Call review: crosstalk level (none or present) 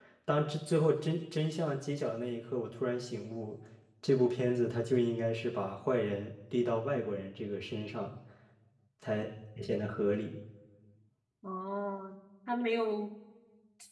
none